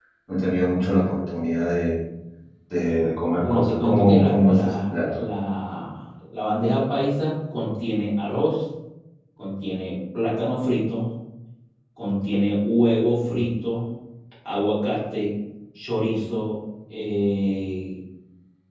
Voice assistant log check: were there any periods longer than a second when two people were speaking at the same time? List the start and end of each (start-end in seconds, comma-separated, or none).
3.4-5.2